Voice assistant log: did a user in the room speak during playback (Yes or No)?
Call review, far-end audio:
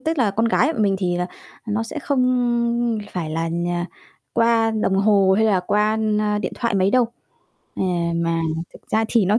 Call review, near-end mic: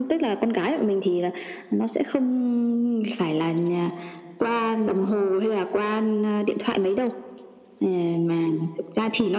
No